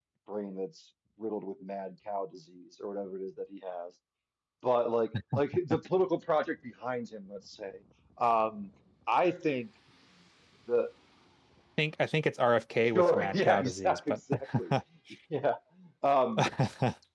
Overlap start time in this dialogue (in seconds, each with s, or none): 12.9 s